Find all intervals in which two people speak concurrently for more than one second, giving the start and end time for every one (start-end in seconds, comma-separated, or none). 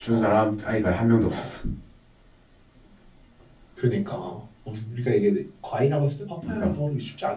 none